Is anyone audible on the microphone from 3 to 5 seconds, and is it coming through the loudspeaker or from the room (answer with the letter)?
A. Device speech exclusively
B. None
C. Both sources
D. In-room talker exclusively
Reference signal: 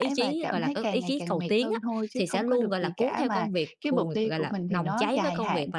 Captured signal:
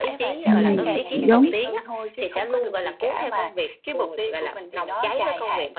A